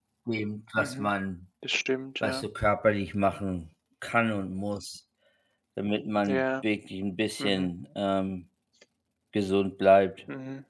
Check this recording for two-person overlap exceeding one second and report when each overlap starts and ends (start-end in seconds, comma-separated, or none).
none